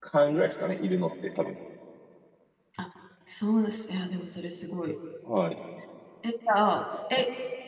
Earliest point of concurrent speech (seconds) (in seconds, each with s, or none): none